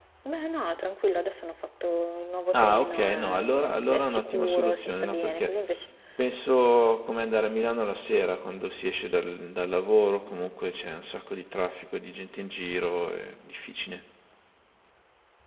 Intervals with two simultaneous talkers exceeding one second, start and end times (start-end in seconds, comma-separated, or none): 2.5-5.5